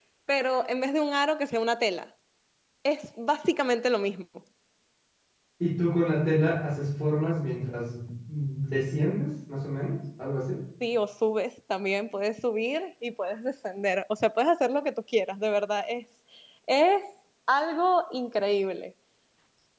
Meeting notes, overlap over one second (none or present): none